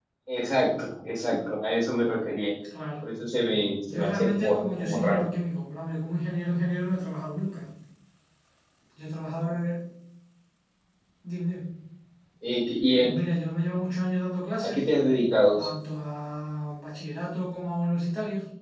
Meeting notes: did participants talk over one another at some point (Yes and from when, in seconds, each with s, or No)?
Yes, from 3.9 s